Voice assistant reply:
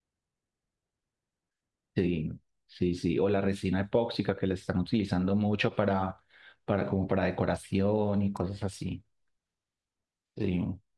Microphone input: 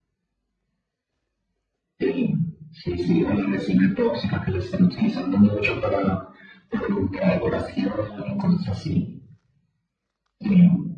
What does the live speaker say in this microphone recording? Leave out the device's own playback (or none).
none